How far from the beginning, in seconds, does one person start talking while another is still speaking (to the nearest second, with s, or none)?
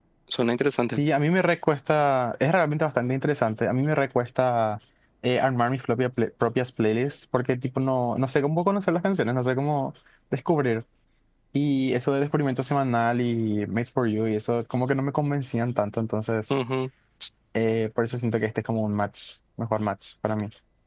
none